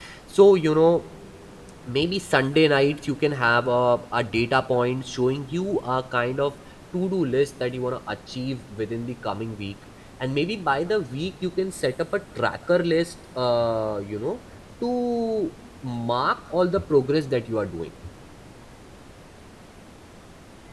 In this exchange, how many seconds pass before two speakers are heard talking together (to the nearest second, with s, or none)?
none